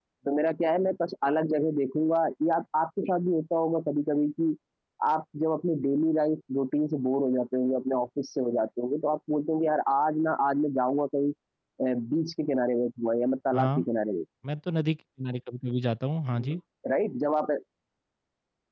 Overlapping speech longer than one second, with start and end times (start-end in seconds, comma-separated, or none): none